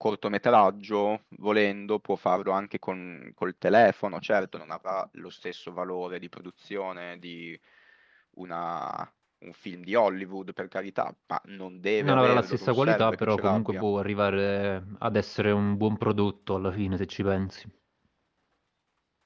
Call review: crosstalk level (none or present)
present